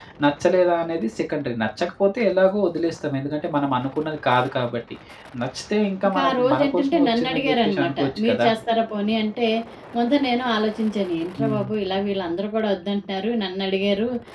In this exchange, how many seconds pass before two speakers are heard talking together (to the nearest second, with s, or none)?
6 s